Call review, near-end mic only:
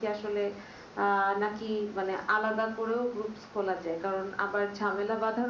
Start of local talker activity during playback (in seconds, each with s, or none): none